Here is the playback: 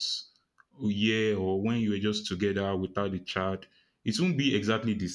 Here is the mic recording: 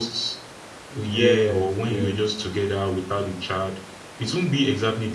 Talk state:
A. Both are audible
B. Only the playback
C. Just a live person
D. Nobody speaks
A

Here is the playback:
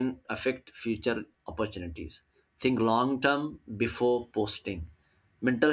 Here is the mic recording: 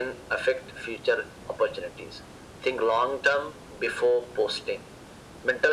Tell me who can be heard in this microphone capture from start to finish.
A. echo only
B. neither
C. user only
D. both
A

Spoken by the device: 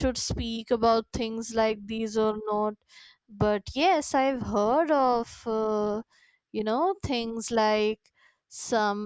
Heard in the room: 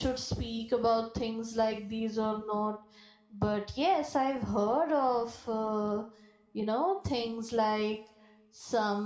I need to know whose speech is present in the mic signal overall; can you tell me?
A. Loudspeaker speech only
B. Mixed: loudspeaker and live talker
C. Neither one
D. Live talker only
A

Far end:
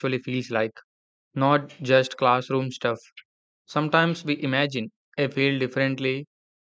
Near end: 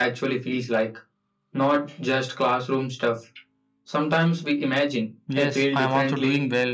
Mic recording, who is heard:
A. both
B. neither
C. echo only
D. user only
A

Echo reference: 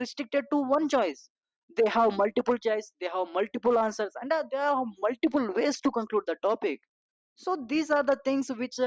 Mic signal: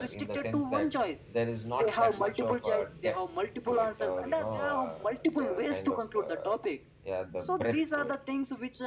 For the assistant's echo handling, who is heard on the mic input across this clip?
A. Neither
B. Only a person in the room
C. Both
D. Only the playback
C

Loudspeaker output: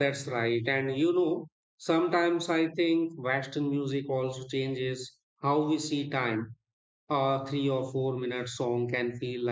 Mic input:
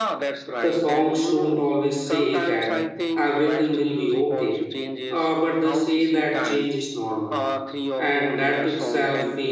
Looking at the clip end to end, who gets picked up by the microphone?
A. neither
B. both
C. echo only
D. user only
B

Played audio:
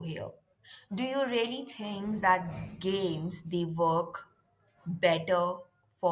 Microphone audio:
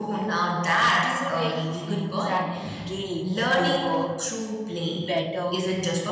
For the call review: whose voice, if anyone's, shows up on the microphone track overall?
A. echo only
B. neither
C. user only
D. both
D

